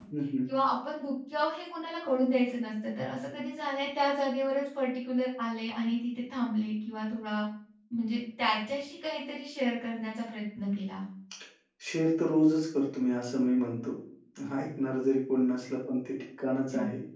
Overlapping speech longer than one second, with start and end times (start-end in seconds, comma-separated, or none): none